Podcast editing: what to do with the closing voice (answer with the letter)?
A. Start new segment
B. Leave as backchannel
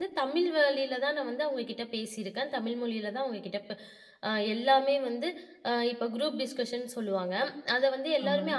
B